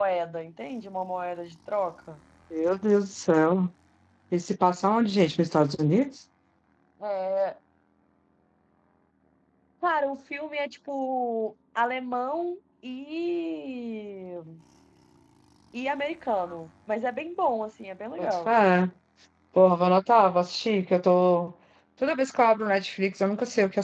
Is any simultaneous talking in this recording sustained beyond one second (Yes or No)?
No